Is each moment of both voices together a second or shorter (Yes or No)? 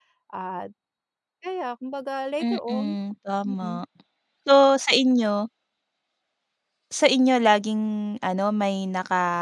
Yes